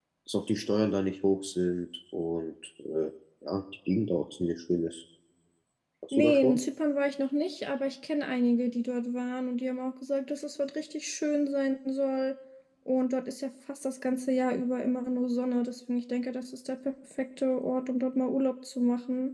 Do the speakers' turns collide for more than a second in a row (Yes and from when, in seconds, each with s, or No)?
No